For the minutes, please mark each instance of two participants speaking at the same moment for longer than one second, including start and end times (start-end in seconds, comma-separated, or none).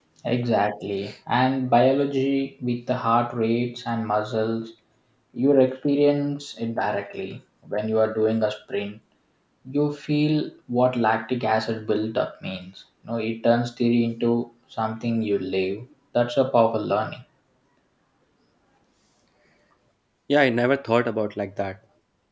none